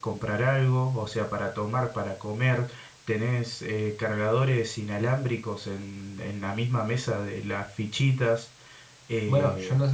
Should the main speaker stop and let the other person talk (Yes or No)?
Yes